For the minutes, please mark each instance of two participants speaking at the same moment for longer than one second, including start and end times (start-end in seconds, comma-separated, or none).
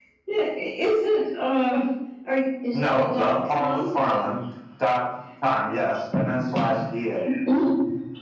2.7-4.2